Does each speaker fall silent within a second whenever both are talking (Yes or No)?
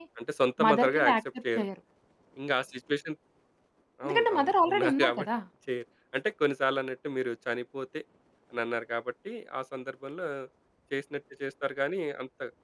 No